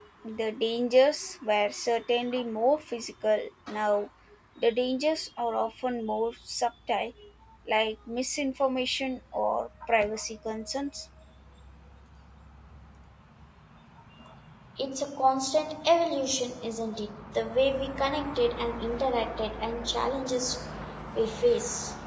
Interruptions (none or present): none